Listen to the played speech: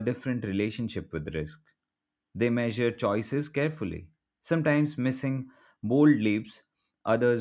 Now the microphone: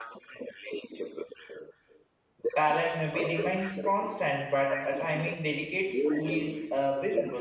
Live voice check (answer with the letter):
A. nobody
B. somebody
B